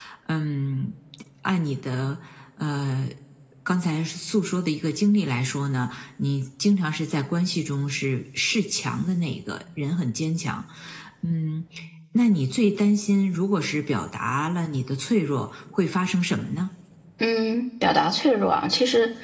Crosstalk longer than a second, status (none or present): none